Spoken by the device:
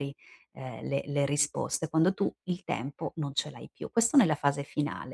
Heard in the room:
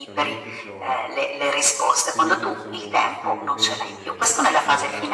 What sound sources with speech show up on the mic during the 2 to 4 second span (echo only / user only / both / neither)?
both